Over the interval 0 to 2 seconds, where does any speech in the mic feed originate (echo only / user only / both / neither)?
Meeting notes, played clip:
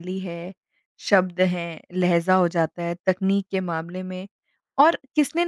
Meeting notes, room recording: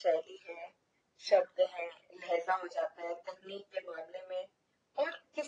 echo only